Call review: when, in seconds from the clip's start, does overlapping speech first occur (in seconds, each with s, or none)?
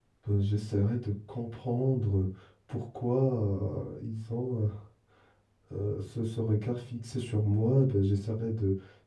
none